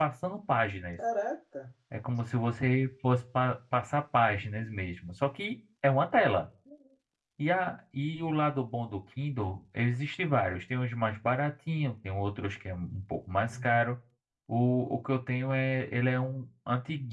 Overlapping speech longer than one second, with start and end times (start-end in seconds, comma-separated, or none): none